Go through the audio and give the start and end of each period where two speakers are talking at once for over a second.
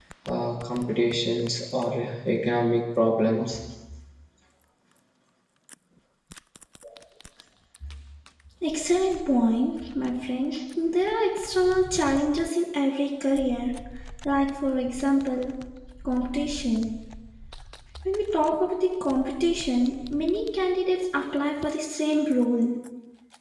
none

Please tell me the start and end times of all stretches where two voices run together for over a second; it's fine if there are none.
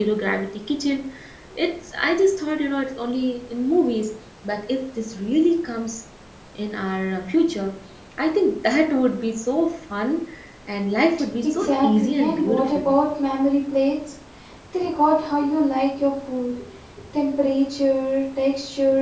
11.4-12.9

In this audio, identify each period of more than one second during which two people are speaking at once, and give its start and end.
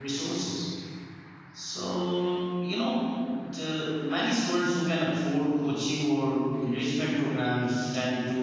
none

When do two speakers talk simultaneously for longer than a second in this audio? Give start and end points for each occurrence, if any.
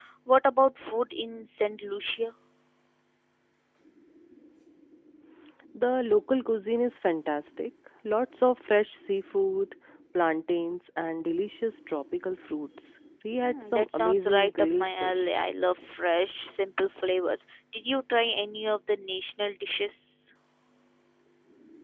13.4-15.3

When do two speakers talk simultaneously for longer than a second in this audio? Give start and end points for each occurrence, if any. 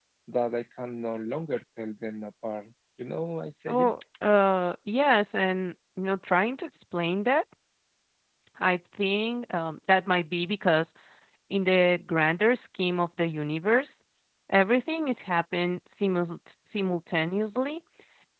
none

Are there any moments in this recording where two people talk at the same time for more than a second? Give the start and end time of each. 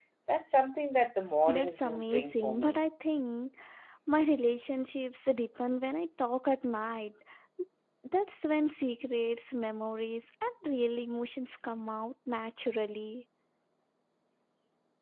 1.5-2.8

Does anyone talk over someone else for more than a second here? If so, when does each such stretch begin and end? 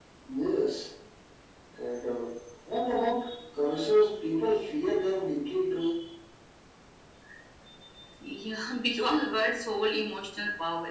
none

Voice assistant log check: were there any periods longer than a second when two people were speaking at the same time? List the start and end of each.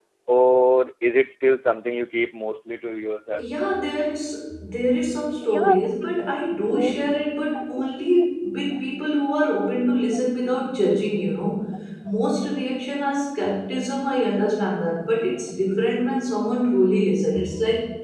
none

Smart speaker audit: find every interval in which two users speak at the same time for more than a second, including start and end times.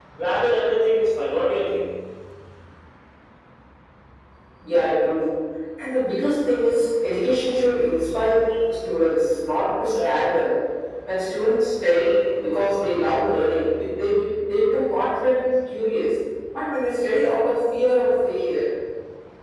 none

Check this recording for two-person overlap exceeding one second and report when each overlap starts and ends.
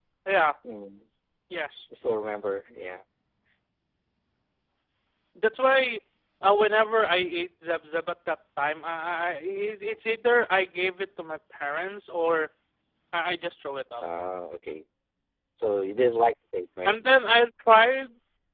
none

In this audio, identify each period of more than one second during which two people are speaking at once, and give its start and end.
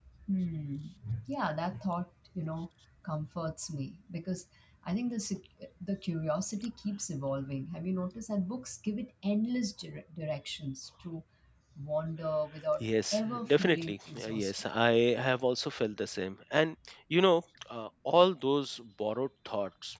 12.8-14.7

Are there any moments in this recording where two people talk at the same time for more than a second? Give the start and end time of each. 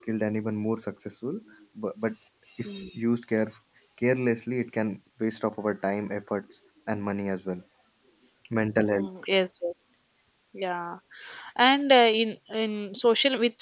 none

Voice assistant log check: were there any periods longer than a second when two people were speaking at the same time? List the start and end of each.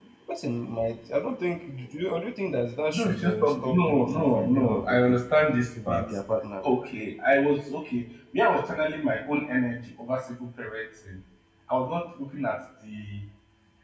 2.9-5.2

